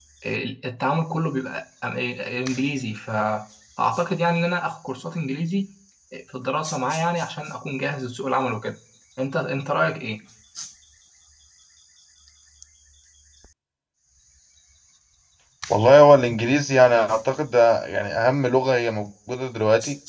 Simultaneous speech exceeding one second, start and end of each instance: none

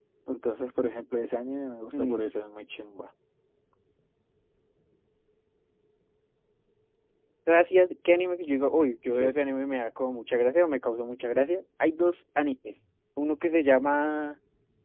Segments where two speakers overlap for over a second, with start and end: none

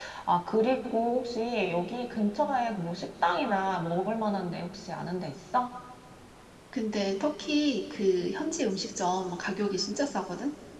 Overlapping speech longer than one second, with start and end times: none

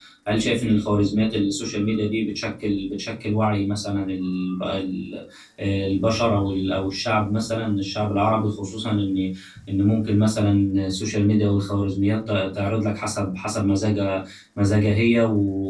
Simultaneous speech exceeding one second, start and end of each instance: none

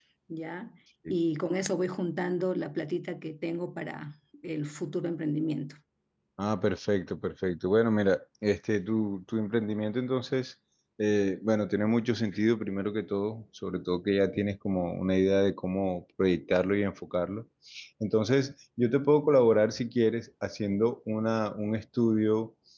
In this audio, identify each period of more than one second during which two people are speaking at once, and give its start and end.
none

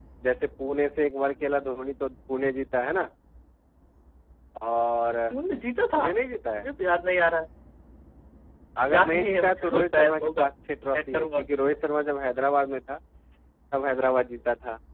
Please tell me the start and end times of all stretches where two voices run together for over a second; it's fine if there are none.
8.8-10.5

